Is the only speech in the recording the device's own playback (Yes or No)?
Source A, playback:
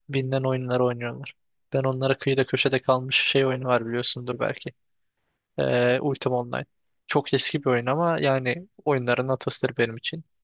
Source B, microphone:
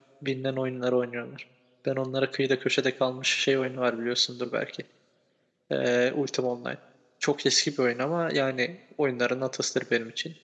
Yes